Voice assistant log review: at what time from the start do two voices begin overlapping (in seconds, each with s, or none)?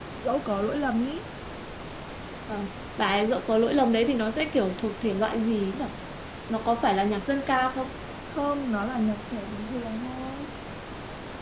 none